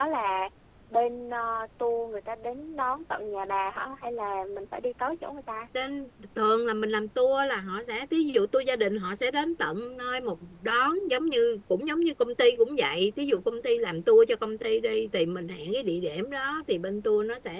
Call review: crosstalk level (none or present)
none